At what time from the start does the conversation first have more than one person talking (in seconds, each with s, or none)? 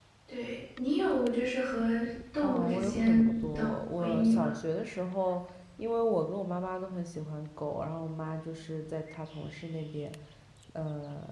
2.4 s